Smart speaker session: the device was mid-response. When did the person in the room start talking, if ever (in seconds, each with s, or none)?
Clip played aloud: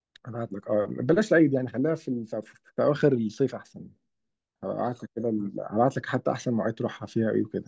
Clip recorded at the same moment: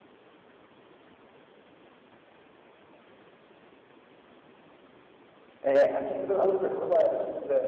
5.6 s